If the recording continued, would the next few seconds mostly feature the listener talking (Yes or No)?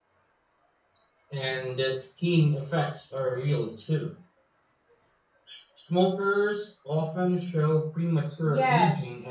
Yes